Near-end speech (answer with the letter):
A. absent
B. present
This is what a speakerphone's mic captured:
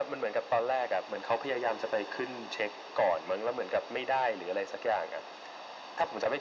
A